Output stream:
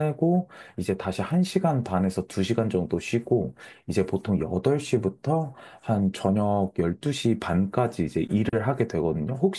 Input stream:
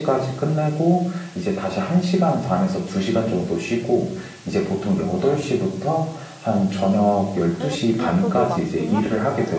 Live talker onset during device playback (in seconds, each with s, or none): 7.5 s